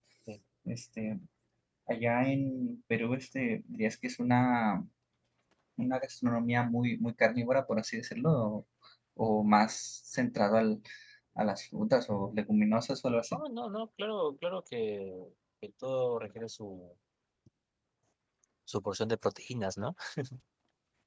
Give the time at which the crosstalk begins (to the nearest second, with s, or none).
none